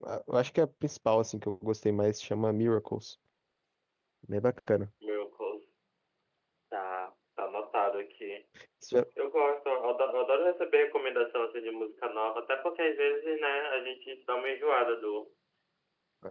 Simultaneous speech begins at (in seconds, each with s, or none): none